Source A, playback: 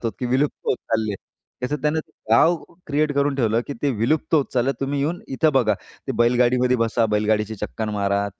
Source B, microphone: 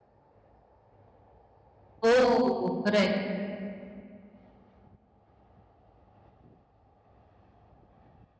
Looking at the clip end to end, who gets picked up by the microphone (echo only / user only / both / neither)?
user only